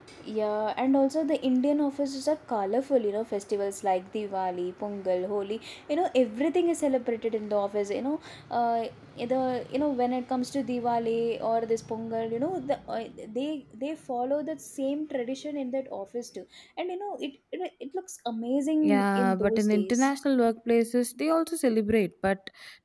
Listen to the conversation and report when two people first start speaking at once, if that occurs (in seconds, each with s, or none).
18.8 s